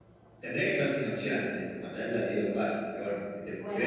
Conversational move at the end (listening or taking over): taking over